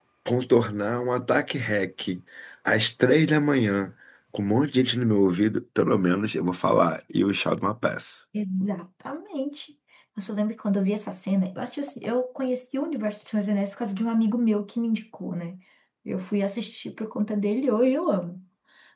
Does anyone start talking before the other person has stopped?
No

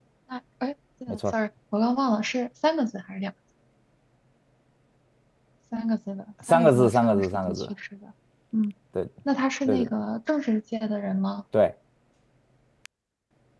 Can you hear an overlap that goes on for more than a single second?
Yes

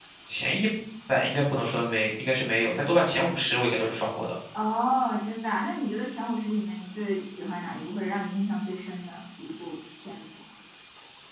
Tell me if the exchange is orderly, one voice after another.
Yes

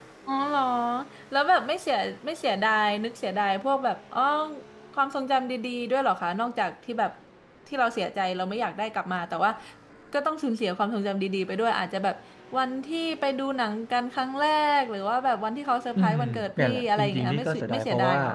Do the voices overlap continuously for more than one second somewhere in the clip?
Yes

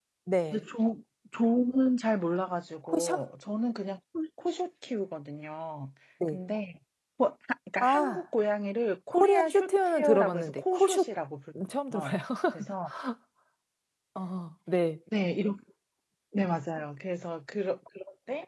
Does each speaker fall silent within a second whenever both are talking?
No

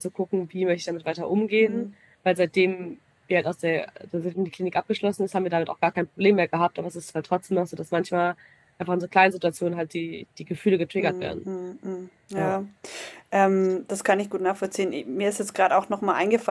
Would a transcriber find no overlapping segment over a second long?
Yes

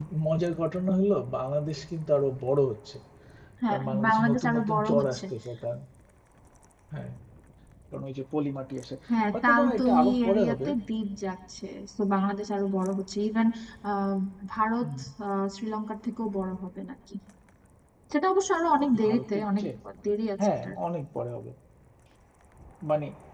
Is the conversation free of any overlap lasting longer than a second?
No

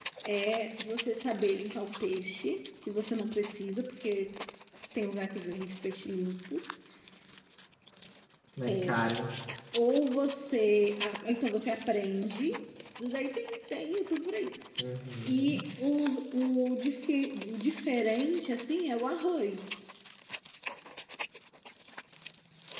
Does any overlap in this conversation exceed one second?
No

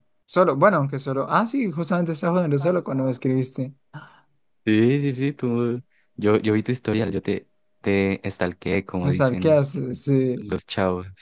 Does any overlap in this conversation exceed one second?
No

